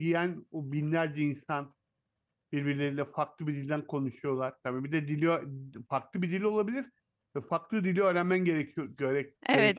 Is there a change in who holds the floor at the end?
Yes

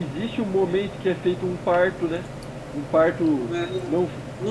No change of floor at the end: No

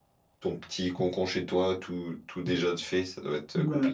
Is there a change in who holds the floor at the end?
Yes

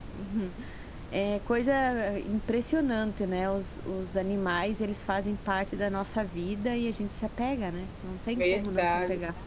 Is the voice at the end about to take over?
Yes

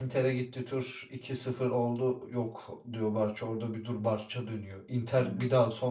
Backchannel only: Yes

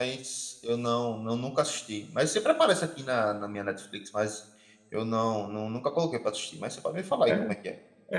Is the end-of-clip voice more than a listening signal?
Yes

